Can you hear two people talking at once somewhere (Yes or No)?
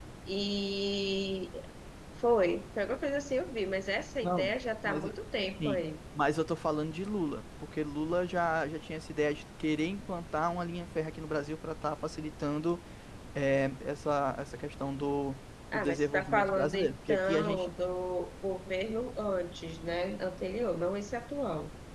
Yes